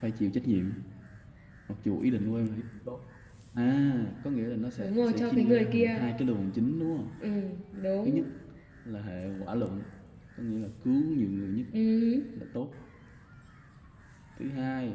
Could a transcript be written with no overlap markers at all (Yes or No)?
No